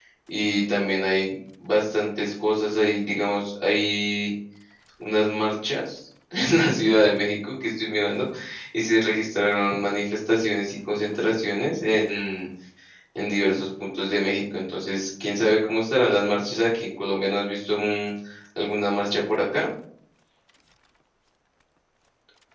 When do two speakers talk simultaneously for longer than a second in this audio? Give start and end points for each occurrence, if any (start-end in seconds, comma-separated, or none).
none